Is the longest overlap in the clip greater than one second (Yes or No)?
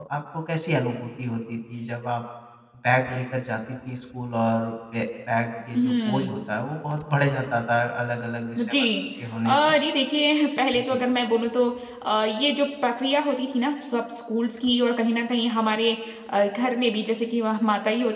No